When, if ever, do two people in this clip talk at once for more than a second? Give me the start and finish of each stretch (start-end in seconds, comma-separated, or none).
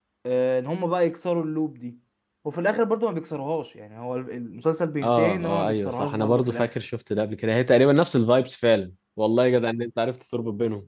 5.0-6.7